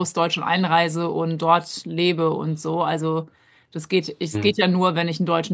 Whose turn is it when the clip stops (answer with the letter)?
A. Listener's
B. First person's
B